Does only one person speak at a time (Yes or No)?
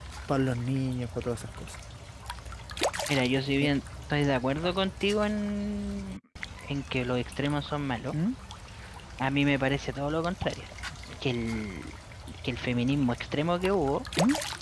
Yes